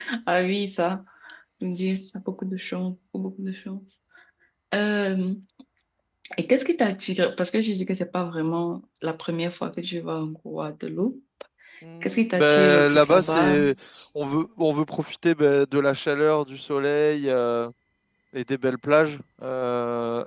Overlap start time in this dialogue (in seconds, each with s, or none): 12.0 s